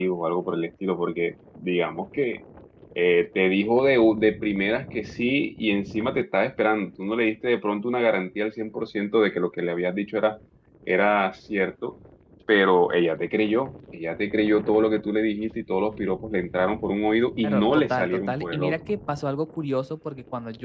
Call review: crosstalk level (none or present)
present